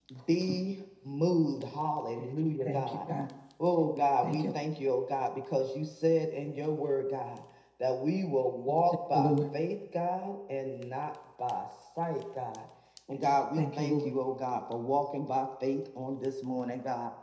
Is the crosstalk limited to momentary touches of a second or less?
Yes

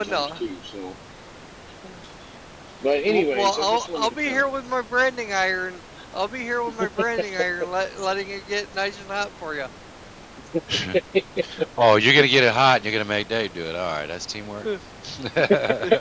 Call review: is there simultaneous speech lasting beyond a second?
Yes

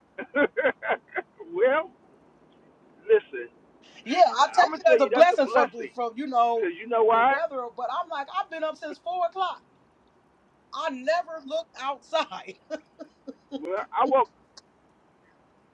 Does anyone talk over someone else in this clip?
Yes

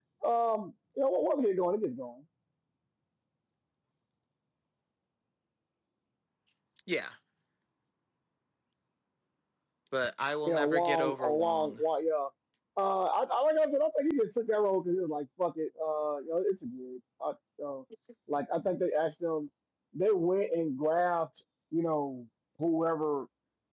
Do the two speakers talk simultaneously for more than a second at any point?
Yes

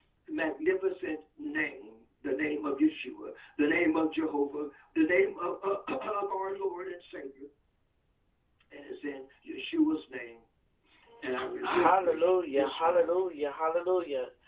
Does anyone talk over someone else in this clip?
Yes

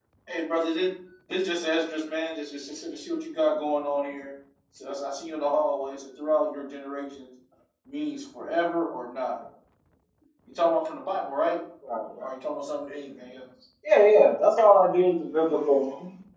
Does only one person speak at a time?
Yes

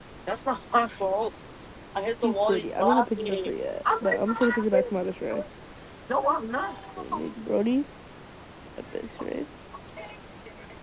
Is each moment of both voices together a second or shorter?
No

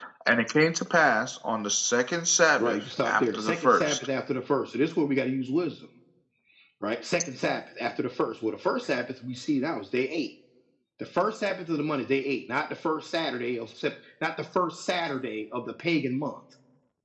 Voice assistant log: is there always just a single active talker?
No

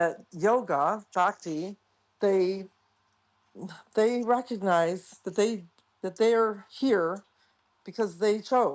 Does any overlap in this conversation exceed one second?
No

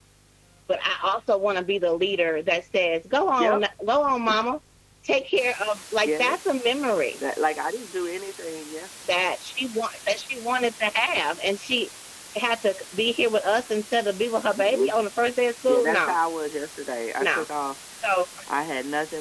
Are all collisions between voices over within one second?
Yes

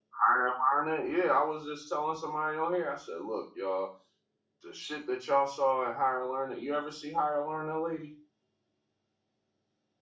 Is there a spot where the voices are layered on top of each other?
No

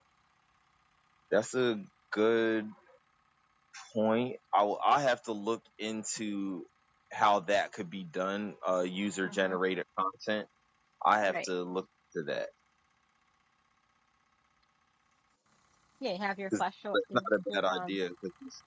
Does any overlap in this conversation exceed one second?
Yes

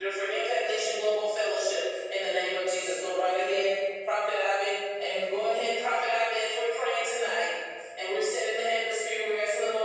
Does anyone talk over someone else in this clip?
No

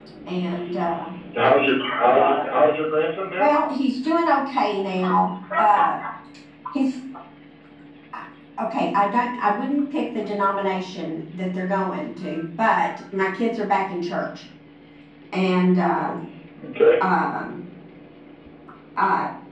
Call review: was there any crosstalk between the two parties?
No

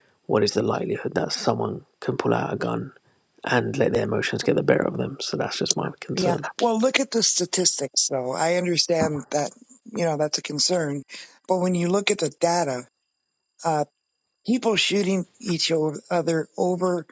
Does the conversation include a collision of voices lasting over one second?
No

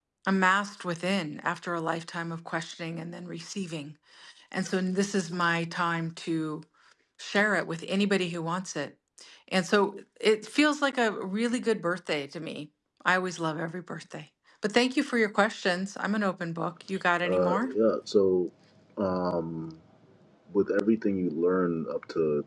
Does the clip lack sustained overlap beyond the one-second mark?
Yes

